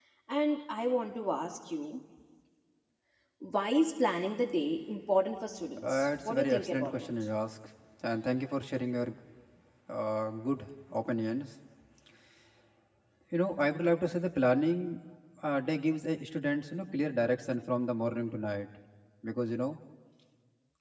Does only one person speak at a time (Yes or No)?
No